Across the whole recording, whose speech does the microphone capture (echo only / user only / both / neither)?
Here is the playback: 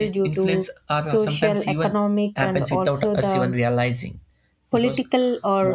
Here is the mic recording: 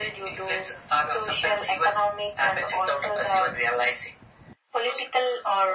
echo only